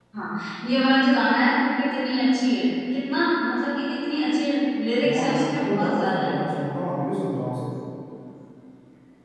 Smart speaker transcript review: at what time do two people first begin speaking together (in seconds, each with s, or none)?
5.0 s